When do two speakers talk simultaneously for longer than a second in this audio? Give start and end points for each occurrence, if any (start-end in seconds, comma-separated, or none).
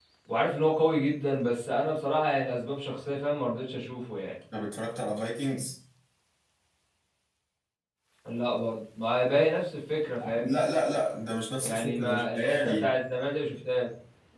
11.6-12.9